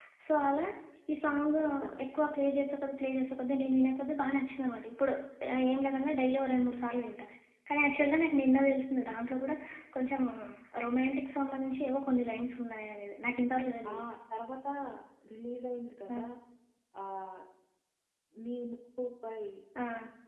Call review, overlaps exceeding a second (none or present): none